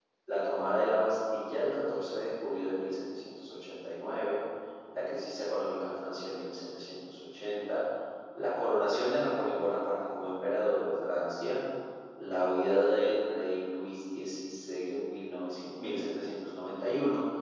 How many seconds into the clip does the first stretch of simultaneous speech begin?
none

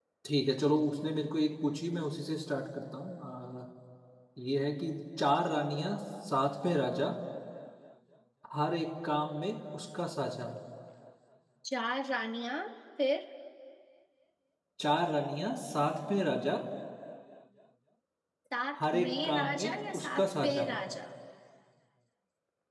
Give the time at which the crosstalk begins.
18.8 s

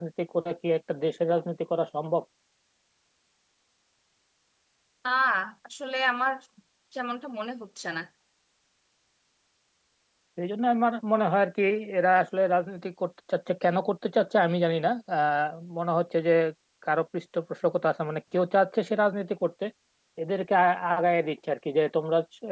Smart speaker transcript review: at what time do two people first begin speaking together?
none

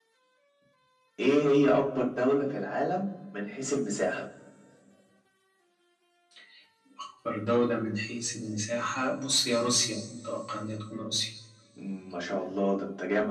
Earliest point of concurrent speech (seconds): none

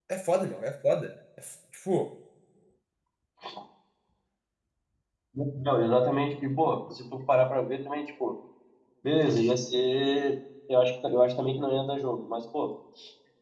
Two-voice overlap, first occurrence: none

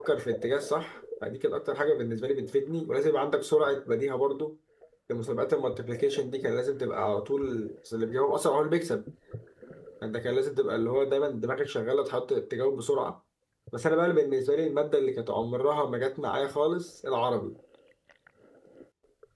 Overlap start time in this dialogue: none

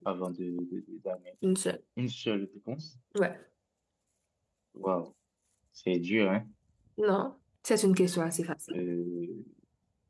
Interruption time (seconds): none

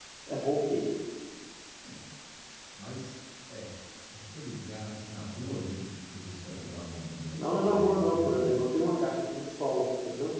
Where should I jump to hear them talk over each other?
7.3 s

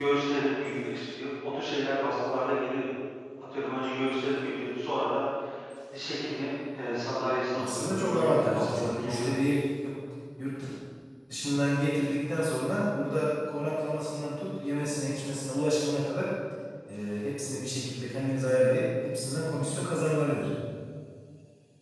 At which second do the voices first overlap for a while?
7.5 s

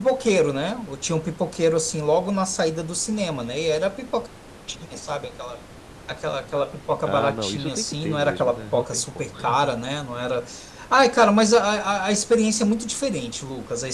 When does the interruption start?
7.1 s

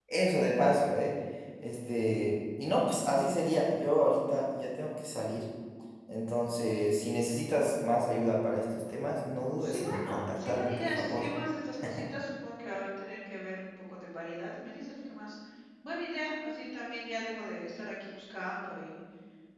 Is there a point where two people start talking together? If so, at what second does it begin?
9.6 s

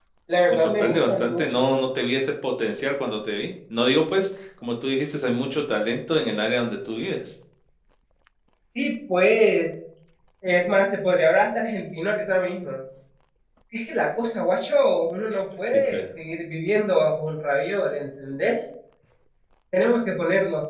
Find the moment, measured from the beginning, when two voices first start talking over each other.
0.5 s

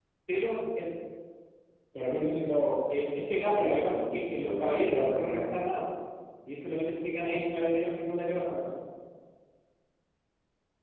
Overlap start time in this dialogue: 3.5 s

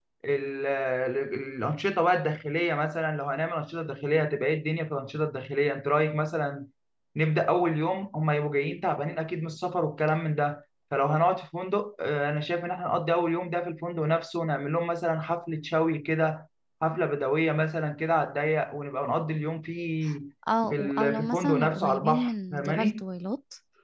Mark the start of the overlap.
20.7 s

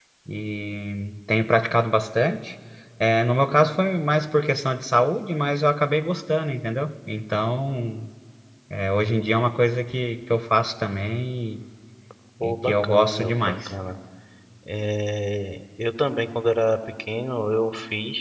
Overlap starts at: 12.4 s

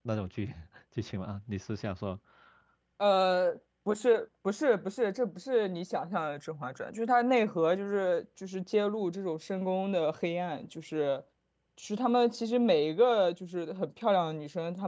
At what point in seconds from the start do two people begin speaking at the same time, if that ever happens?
none

